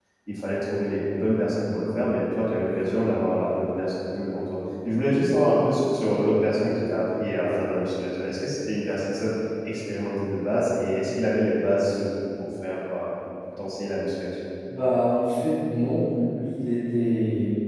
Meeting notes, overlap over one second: none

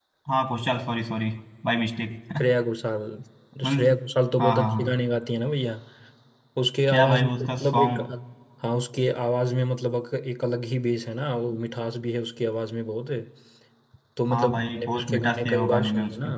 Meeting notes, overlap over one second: present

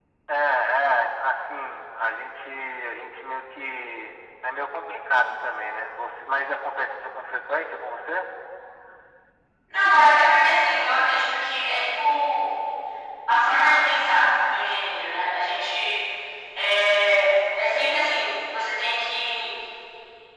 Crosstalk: none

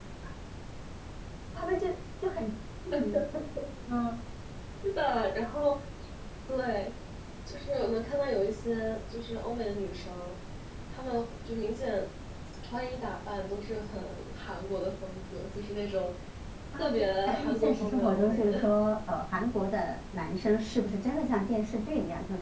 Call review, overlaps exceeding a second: present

